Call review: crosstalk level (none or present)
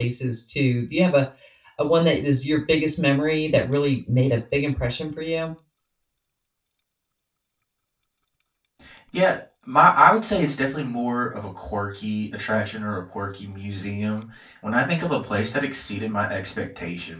none